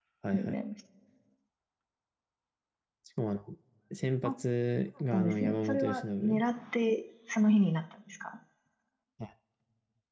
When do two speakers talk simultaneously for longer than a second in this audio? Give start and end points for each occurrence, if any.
5.1-6.4

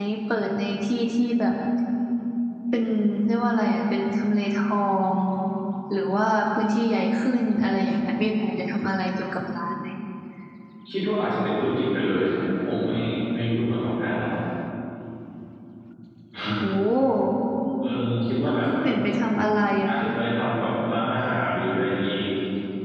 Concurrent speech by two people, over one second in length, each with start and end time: none

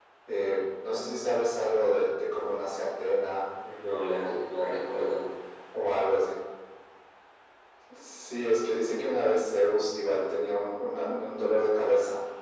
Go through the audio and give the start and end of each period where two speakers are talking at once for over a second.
none

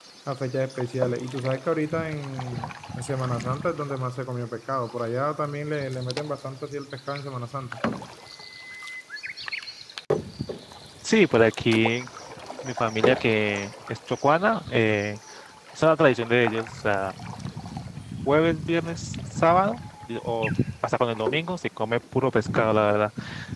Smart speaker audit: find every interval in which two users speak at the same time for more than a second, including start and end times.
none

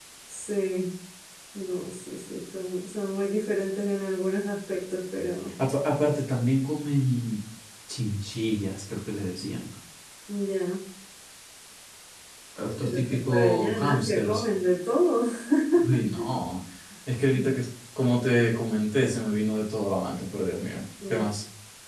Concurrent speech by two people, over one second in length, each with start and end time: 12.6-14.4

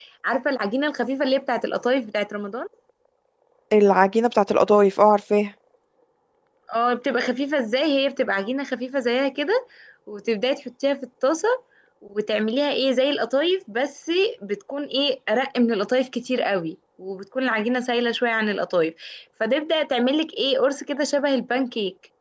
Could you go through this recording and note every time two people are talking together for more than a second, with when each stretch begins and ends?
none

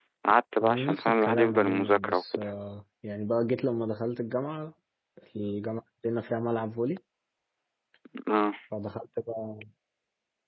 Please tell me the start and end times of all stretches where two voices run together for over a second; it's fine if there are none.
0.6-2.5

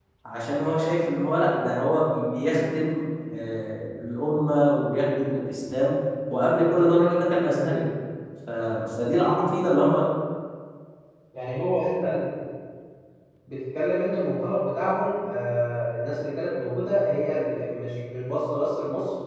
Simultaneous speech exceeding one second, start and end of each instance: none

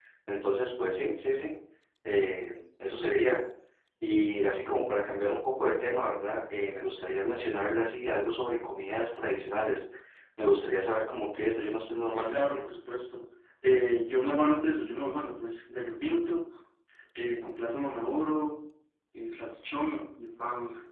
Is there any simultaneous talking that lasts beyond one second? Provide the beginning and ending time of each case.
none

